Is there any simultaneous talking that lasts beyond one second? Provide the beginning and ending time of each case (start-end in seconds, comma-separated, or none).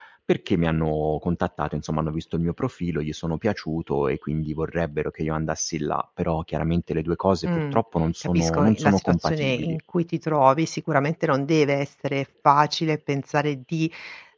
8.3-9.8